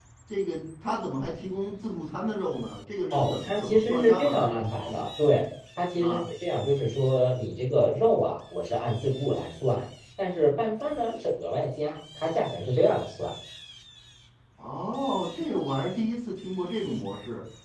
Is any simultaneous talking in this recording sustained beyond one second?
Yes, from 3.1 s

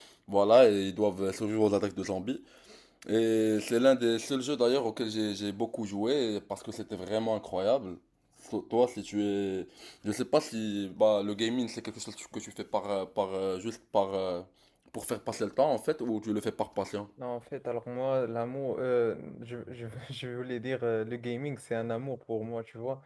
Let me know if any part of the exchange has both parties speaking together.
No

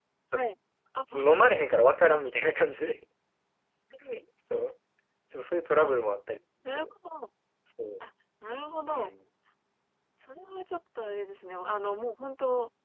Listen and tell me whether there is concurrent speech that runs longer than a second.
No

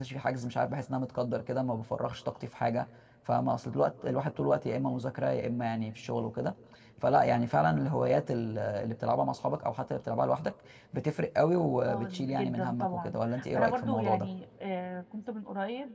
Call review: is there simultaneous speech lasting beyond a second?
Yes, from 11.9 s

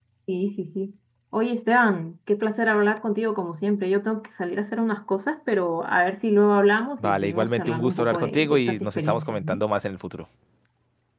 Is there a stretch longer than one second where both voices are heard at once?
Yes, from 7.0 s

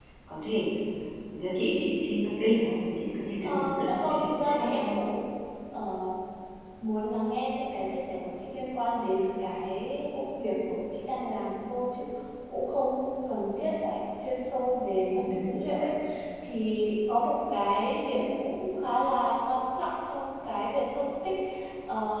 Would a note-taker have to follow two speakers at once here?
Yes, from 3.4 s

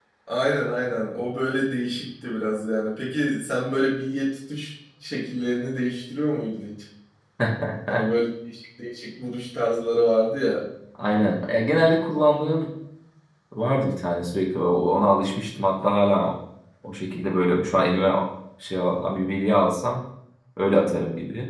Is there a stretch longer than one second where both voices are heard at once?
No

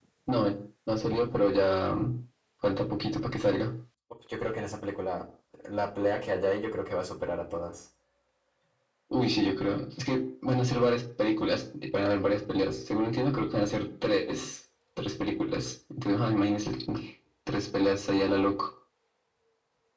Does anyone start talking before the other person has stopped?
No

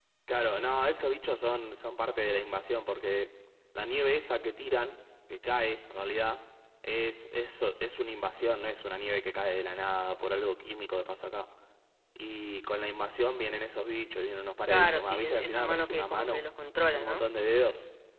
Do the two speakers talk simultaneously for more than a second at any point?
Yes, from 14.6 s

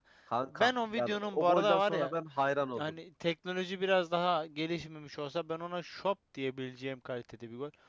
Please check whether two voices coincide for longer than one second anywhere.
Yes, from 0.5 s

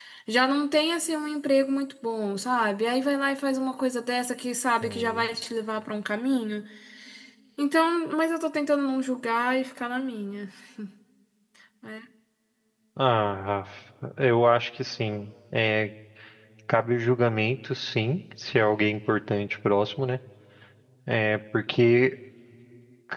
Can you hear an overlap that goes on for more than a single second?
No

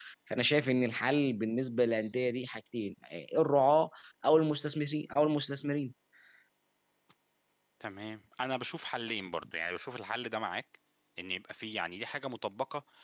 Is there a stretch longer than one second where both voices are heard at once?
No

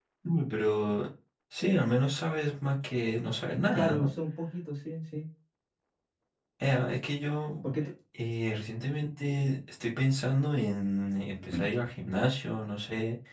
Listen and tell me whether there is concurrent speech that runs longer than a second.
No

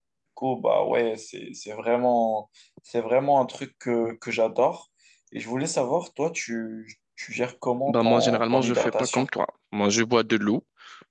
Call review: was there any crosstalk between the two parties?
Yes, from 7.9 s

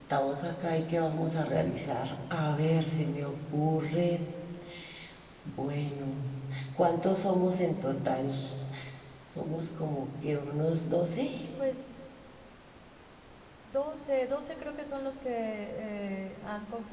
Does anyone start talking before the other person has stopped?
No

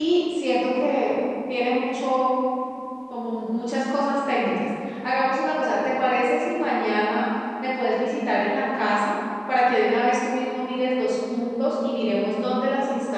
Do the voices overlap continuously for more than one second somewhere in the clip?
No

